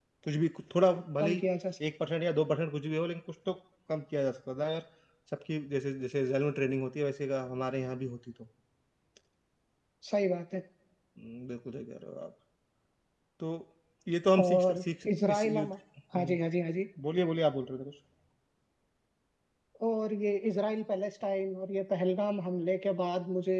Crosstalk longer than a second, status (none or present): present